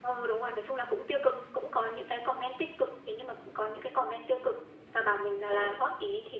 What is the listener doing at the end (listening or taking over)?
listening